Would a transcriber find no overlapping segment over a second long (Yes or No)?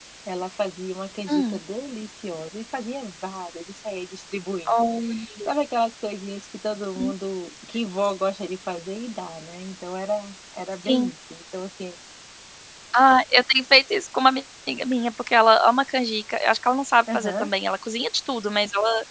Yes